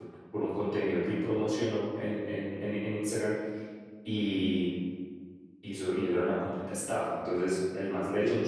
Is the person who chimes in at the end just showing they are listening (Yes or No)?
Yes